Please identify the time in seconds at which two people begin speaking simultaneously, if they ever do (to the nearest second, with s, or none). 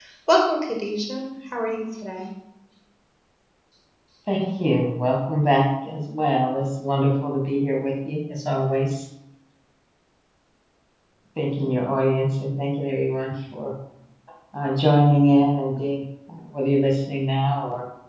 none